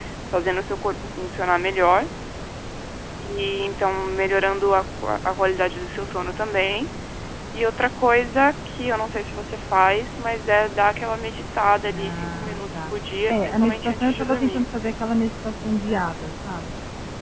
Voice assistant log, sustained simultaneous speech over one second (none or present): present